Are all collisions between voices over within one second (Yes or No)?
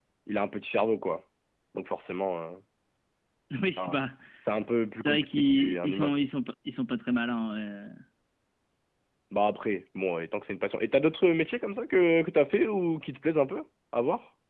No